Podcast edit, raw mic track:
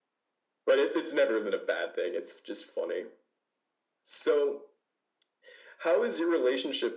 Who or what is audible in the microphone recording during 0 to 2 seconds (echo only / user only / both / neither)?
echo only